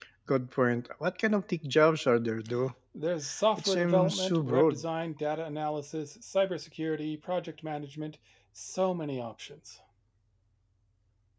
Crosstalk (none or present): present